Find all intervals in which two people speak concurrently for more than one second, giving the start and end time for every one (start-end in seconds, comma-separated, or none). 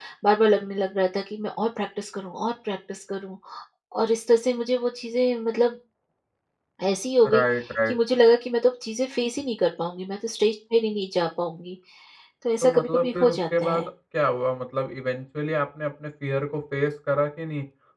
12.6-13.9